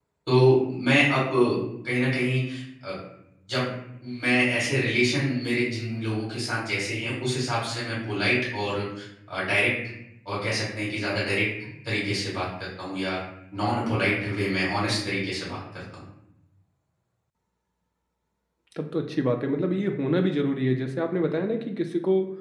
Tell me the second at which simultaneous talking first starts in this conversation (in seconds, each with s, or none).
none